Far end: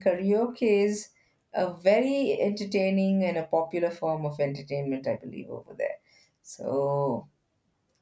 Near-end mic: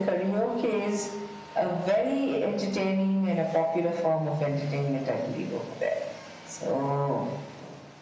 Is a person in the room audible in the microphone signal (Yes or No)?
No